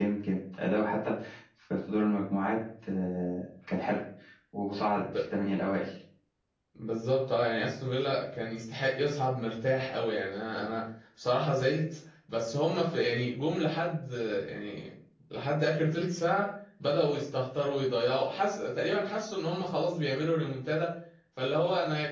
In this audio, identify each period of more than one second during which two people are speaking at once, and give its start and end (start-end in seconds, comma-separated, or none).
none